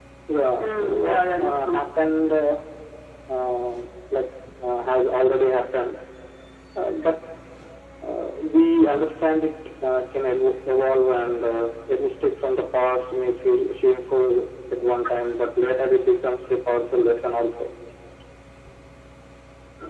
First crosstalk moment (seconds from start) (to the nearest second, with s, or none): 1 s